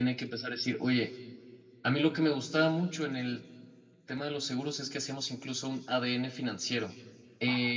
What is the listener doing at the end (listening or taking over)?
listening